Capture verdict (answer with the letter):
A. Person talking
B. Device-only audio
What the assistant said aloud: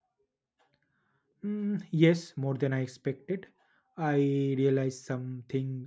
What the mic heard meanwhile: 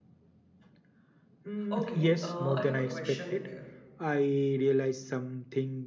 A